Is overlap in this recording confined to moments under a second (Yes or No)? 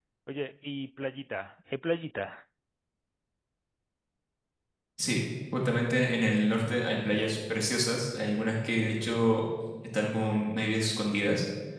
Yes